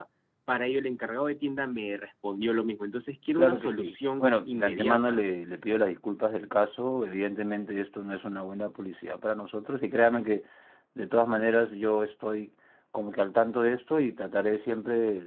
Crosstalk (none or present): present